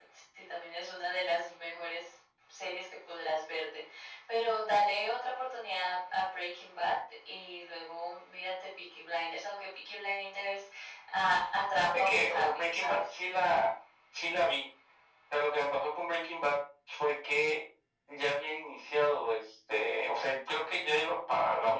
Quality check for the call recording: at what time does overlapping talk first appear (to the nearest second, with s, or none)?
12 s